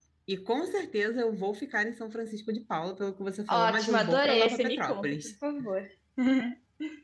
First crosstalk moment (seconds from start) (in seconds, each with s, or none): 3.5 s